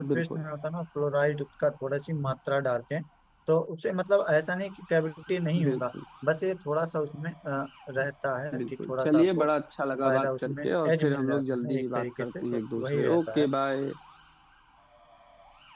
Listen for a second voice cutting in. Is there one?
Yes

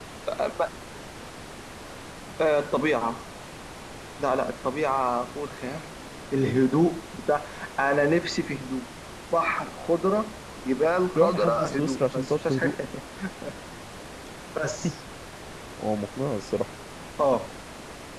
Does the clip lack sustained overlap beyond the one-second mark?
No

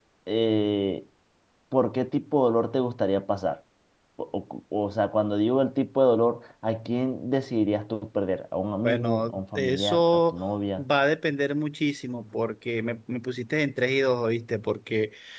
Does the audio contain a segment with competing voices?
Yes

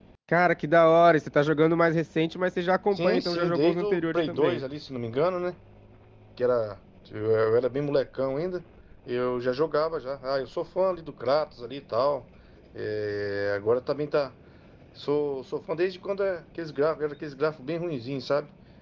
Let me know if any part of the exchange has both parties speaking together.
Yes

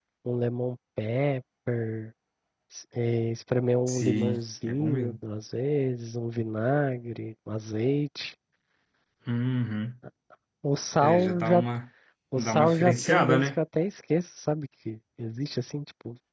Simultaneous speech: Yes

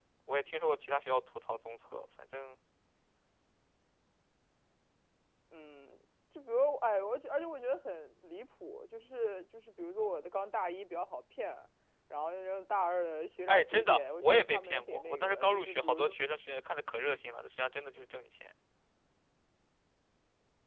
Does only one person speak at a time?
No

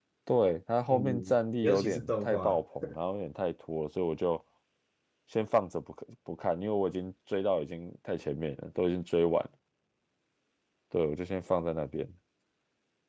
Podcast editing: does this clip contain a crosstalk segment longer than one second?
Yes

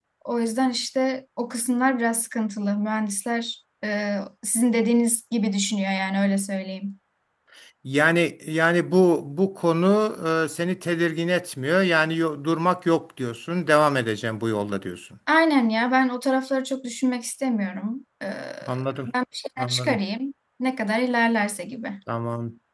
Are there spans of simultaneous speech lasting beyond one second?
No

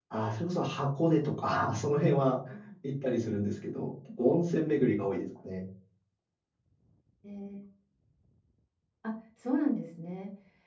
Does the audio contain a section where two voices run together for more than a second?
No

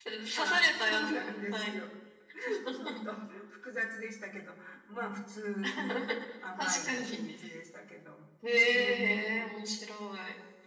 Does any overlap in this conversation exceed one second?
Yes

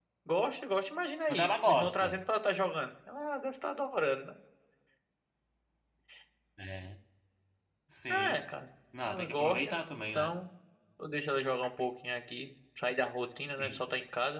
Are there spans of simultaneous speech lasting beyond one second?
Yes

